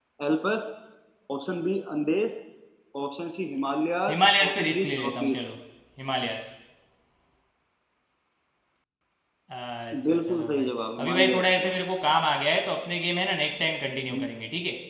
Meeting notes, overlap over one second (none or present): present